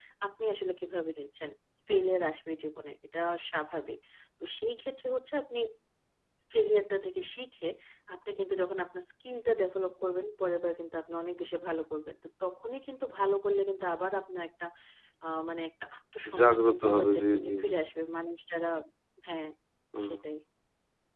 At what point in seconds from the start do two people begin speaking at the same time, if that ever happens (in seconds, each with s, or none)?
16.3 s